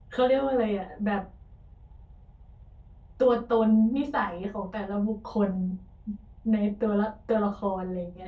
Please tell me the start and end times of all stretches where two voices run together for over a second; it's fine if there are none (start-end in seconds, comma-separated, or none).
none